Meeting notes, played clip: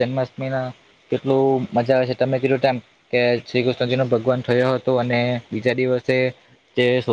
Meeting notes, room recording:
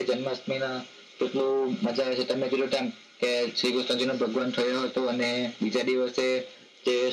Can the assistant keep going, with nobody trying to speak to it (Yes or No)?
Yes